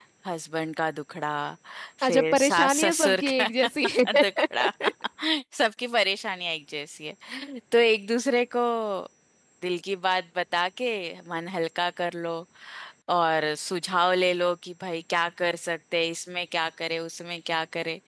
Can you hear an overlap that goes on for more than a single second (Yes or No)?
Yes